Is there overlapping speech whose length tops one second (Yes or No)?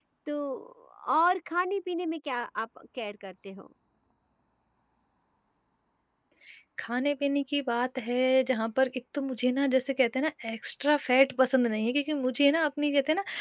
No